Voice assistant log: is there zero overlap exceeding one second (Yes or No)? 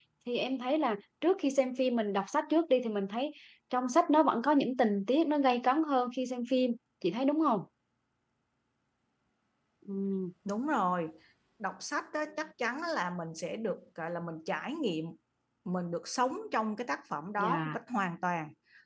Yes